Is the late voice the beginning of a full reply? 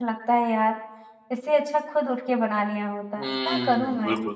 Yes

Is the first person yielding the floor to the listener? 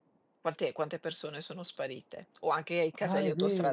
Yes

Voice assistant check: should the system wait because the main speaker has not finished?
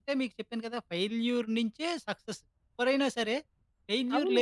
No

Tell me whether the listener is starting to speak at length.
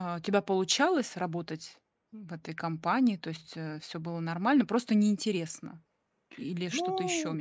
Yes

